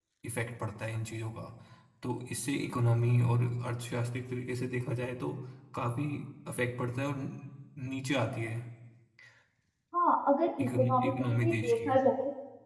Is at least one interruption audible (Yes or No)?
Yes